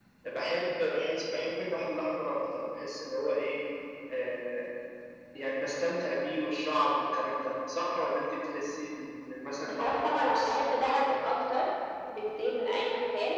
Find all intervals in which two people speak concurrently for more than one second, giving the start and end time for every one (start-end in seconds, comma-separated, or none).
9.6-11.1